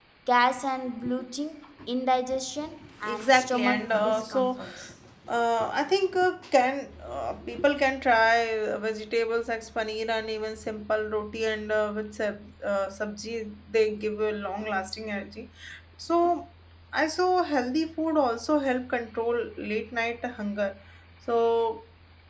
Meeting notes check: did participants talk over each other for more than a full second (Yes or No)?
Yes